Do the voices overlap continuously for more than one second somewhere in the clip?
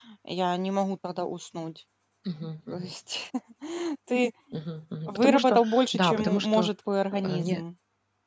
Yes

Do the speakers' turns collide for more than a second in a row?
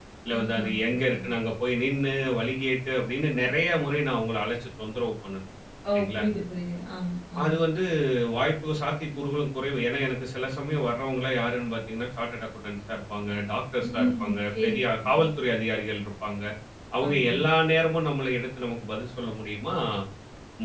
Yes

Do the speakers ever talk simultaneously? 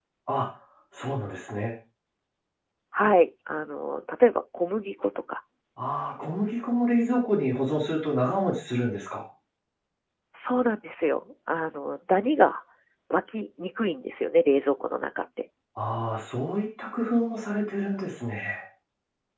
No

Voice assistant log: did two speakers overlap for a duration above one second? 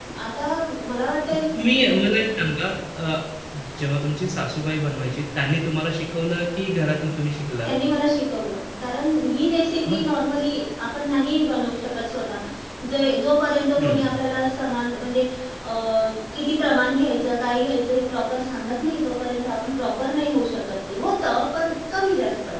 No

